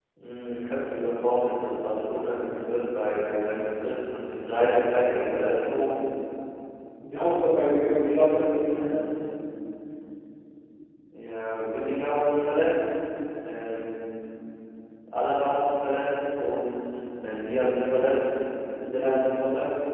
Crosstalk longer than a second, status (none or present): none